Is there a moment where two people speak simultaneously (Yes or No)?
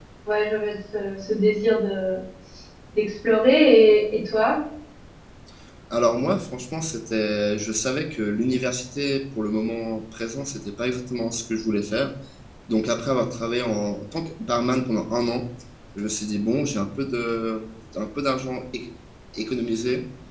No